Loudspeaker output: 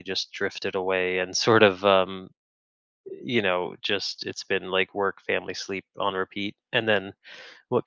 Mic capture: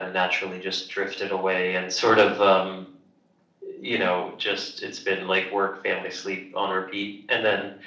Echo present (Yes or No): Yes